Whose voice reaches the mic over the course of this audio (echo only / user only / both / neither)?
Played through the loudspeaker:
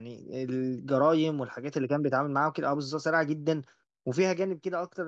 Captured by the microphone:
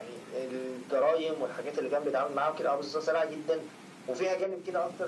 echo only